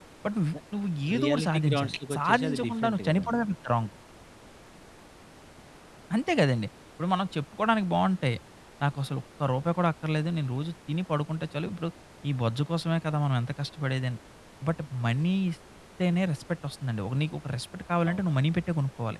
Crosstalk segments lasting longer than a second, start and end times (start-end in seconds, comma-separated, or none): 1.2-3.4